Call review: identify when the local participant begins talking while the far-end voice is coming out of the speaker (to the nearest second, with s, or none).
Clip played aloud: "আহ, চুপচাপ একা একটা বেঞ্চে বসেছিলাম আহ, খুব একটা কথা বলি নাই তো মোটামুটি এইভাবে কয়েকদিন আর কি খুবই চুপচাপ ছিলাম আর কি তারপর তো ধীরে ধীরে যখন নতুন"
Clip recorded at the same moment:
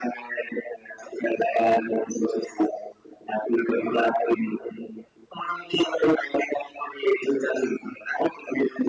none